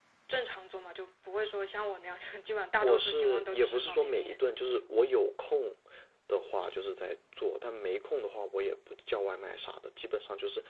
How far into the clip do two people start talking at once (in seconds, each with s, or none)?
2.8 s